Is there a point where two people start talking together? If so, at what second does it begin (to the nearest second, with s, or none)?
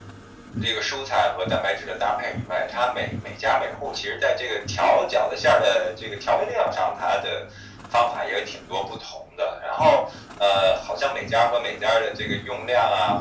none